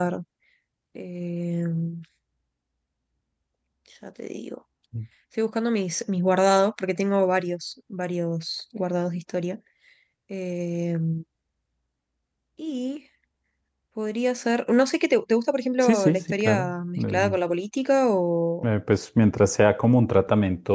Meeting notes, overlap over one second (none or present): present